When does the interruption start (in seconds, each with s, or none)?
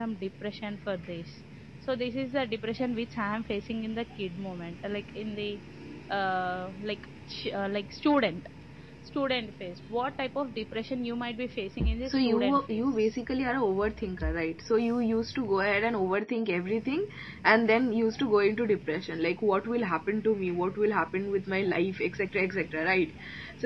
12.1 s